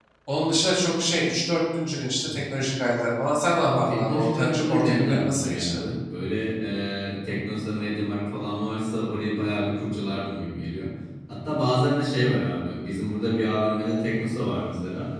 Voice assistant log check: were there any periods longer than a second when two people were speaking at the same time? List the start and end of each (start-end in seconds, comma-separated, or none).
3.6-5.8